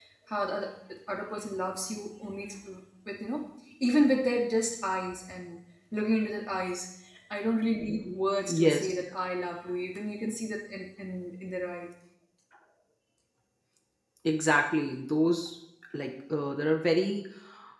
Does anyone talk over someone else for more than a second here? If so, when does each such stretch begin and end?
none

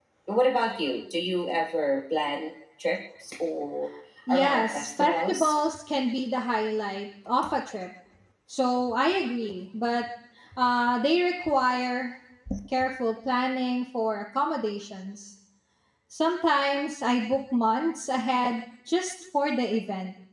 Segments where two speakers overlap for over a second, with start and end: 4.3-5.5

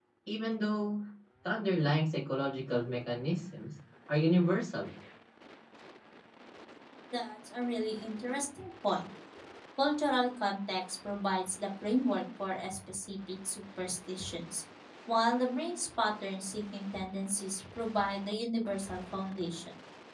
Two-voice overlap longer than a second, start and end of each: none

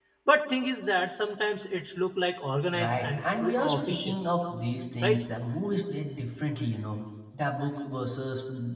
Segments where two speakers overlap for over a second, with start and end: 2.8-4.2

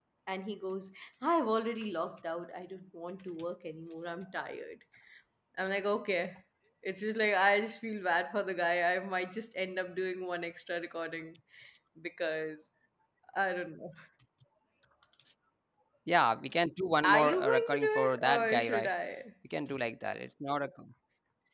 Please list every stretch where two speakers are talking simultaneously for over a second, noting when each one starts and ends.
17.0-18.9

